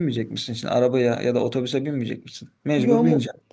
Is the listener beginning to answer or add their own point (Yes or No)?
Yes